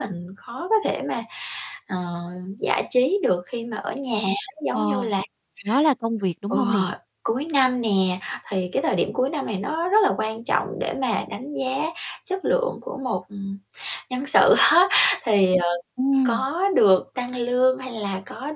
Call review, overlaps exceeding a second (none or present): none